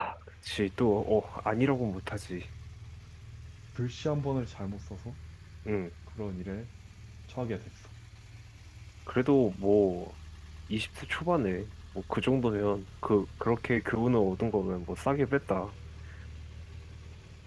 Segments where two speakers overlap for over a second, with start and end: none

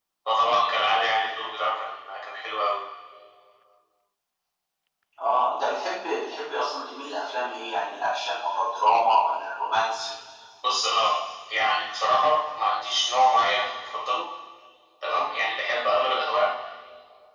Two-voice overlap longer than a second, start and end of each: none

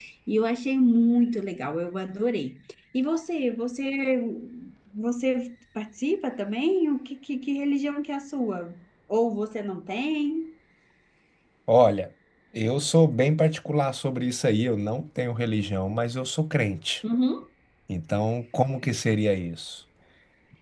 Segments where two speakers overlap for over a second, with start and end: none

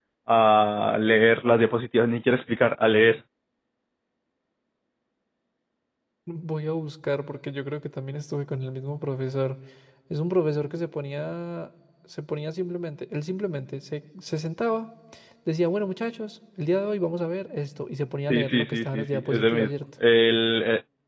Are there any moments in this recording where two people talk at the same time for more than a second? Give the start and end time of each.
18.3-19.7

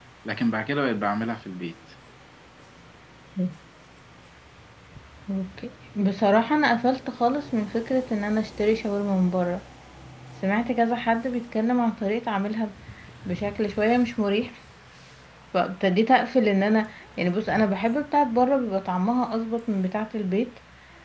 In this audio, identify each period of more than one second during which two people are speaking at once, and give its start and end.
none

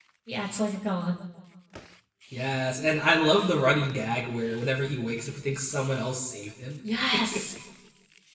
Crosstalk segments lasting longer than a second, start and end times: none

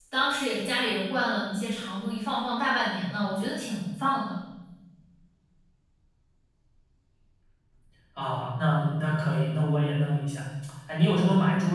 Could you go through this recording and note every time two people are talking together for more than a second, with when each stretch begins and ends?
none

